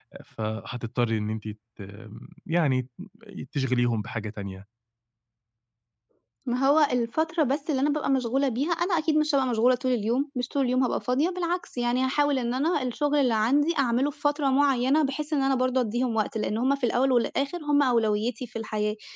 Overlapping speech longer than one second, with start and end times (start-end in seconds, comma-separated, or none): none